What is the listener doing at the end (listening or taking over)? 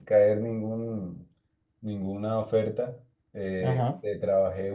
listening